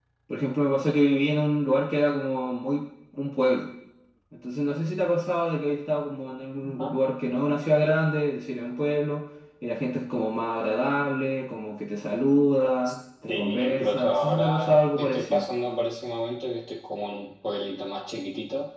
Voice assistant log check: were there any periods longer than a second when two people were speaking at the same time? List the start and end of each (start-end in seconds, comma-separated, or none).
13.3-15.4